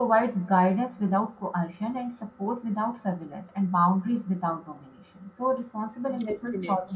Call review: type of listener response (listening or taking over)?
listening